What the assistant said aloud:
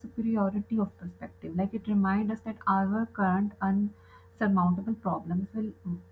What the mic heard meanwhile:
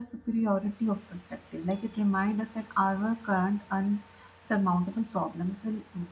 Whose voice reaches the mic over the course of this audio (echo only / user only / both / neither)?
echo only